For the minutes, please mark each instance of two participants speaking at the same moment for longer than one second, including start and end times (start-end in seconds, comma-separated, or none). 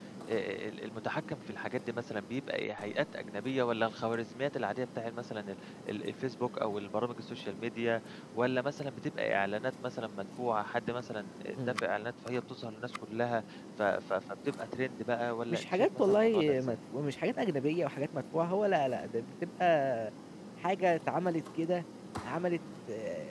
15.5-16.8